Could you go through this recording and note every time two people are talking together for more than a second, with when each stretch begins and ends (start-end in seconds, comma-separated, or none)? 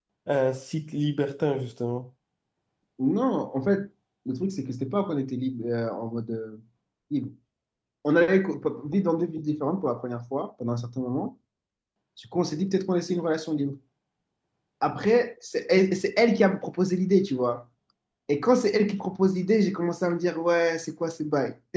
none